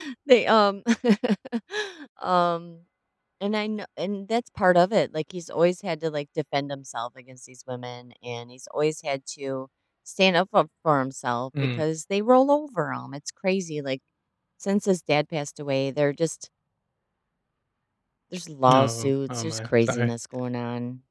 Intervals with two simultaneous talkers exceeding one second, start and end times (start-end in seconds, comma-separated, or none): 18.7-20.1